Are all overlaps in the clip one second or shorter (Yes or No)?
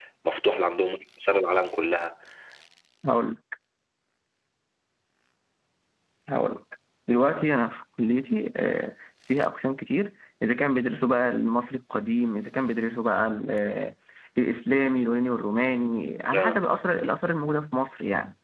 Yes